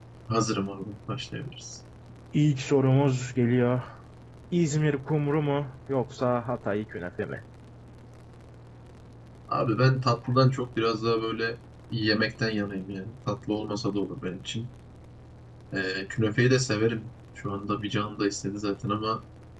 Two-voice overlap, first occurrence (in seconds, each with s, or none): none